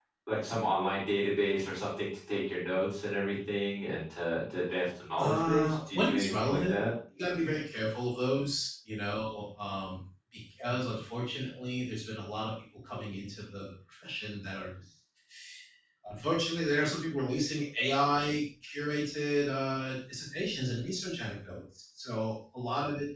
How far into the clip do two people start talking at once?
5.2 s

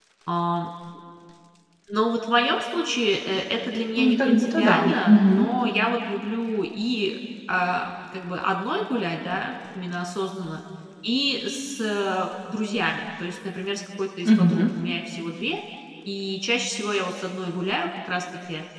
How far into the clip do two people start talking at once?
4.0 s

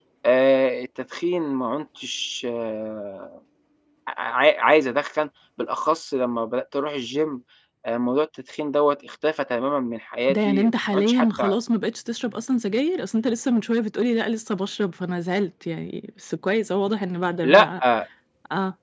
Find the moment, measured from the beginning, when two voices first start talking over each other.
10.3 s

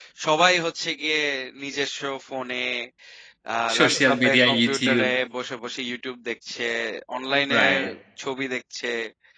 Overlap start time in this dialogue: 3.7 s

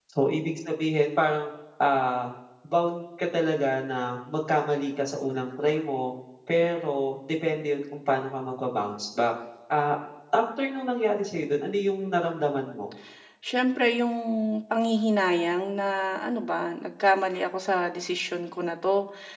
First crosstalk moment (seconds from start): none

